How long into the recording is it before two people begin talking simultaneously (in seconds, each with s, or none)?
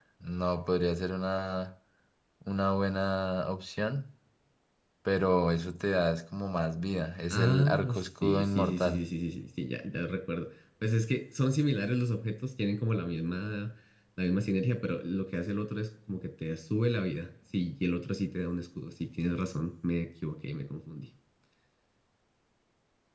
7.3 s